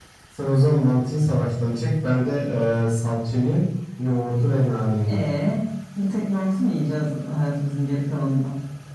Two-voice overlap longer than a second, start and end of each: none

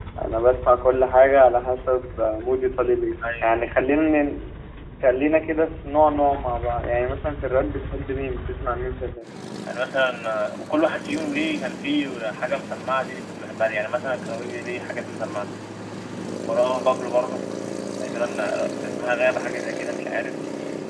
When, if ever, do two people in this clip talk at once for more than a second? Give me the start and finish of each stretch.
none

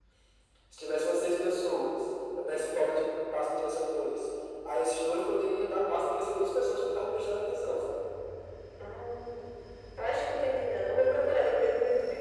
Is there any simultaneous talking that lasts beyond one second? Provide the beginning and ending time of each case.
none

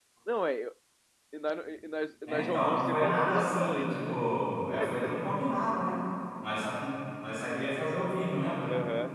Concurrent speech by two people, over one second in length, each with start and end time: 2.3-4.2

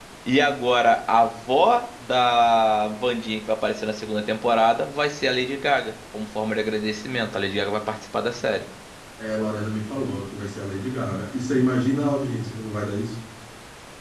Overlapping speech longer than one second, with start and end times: none

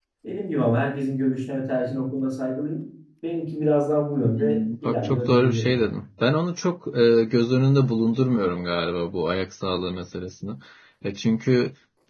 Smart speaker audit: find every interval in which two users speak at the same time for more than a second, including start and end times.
4.2-6.0

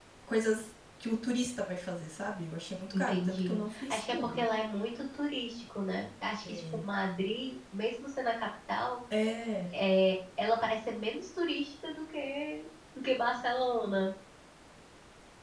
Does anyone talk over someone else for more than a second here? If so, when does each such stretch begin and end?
2.9-4.5

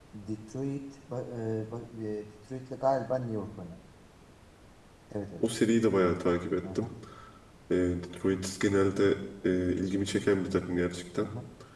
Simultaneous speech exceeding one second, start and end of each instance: none

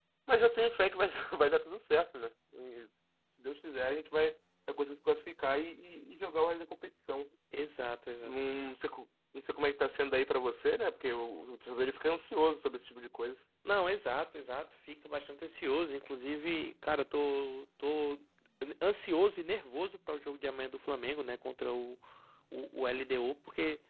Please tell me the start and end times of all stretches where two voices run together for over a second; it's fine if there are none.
none

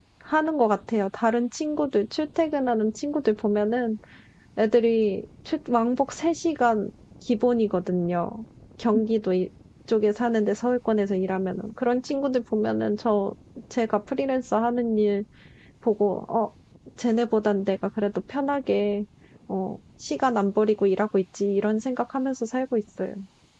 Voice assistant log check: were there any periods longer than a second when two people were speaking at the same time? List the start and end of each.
none

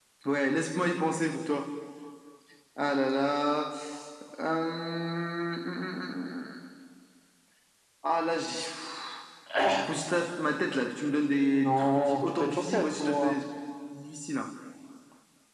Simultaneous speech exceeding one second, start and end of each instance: 11.5-13.3

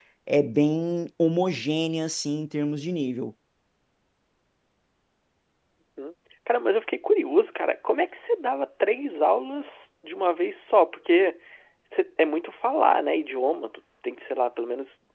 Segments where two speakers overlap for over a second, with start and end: none

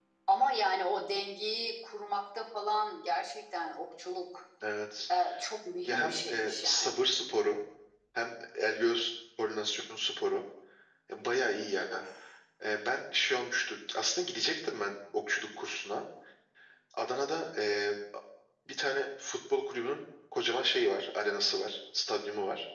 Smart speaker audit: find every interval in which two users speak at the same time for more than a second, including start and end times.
5.8-7.0

